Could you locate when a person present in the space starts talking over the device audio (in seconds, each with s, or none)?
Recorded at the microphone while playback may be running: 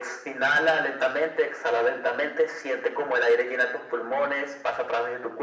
none